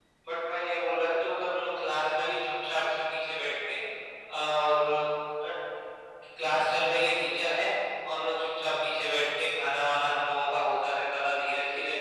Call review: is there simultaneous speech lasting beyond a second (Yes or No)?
No